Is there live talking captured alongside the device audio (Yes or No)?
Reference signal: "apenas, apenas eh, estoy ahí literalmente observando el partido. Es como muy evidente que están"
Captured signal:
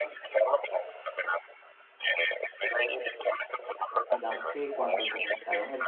Yes